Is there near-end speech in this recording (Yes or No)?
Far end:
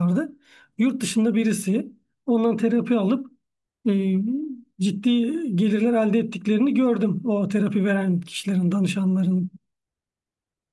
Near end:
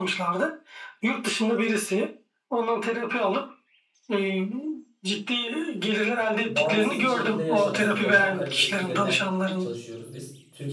Yes